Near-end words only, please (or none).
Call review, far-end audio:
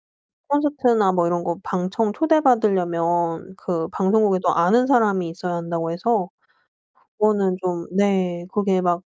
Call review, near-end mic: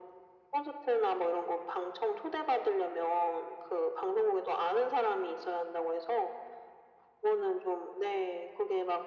none